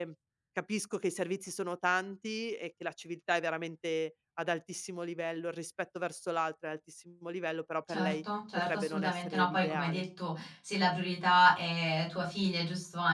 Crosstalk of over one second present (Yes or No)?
Yes